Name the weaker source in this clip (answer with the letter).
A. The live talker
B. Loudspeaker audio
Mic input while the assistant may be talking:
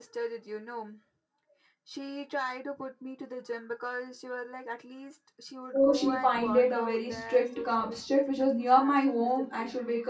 B